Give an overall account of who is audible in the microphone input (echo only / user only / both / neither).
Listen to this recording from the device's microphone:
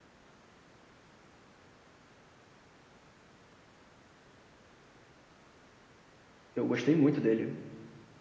user only